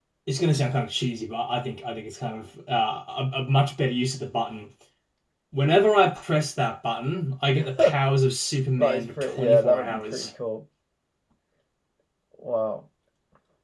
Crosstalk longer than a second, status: present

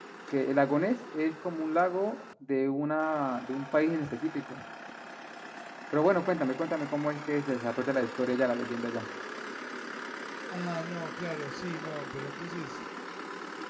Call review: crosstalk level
none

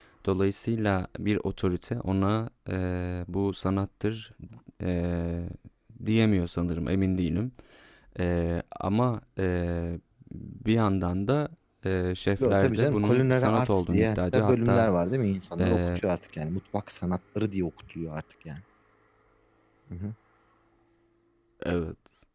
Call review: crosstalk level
present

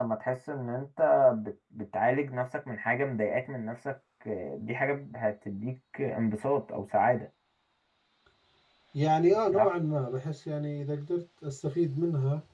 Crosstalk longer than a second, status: none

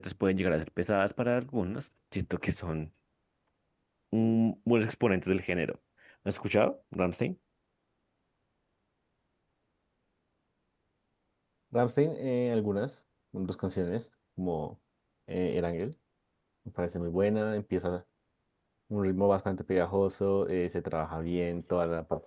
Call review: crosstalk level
none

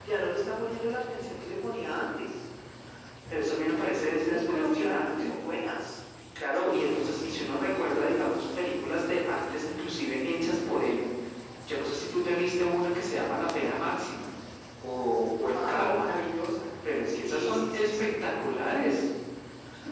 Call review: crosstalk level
present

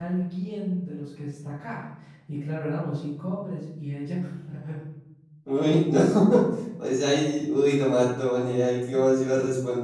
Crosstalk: none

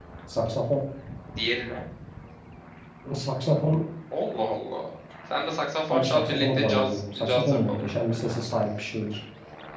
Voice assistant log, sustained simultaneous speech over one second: present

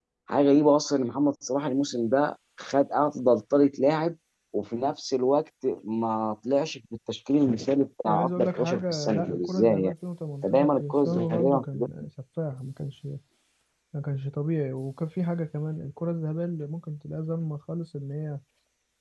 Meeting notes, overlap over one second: present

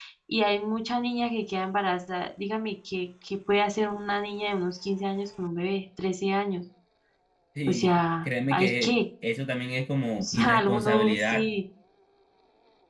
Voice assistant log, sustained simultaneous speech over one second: present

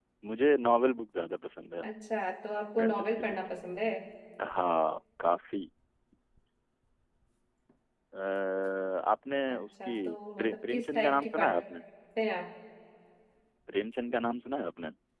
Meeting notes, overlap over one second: present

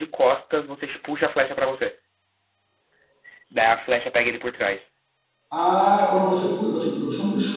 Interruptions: none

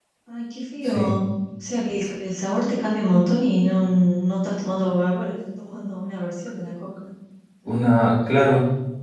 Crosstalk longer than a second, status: none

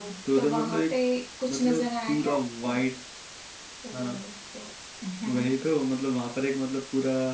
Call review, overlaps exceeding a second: present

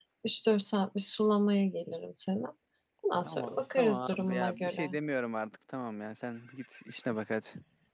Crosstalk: present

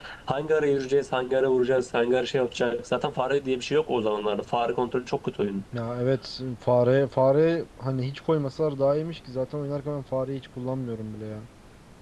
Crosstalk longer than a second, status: none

